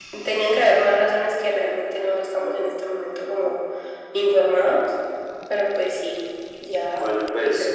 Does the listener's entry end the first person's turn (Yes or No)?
Yes